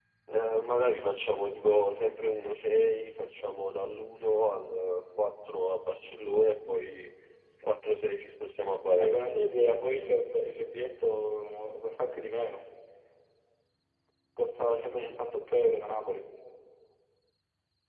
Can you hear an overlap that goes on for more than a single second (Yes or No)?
No